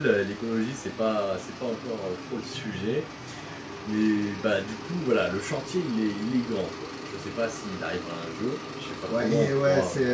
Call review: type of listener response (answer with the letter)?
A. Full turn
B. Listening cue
A